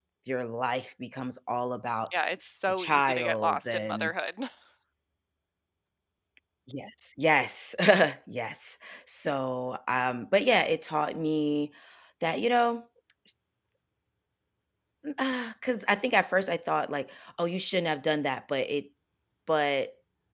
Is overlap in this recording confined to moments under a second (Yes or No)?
No